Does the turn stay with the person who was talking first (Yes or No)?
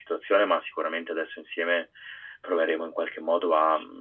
Yes